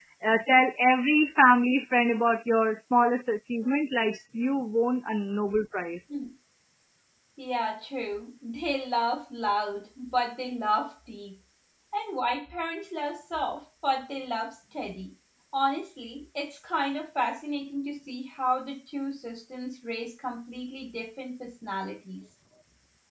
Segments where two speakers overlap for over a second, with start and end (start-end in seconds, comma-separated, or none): none